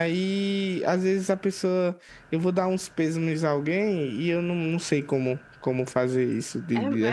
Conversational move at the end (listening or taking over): taking over